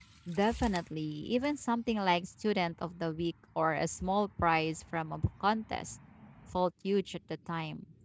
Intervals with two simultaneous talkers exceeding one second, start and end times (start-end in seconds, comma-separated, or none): none